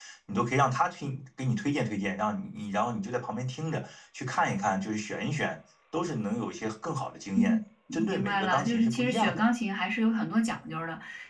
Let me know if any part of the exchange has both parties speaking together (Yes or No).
Yes